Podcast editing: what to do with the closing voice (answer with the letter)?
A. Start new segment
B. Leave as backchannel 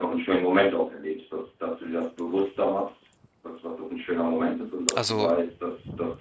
B